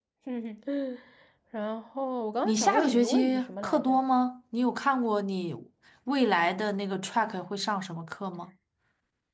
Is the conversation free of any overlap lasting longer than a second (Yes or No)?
No